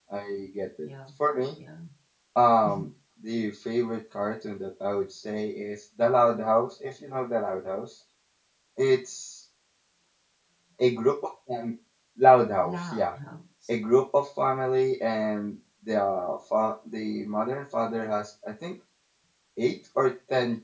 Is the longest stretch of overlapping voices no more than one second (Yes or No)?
Yes